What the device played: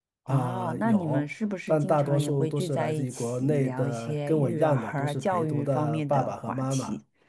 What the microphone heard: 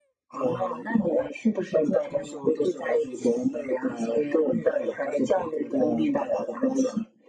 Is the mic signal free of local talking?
Yes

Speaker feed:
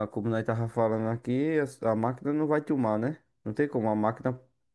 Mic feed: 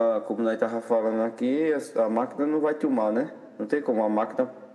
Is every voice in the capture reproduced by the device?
Yes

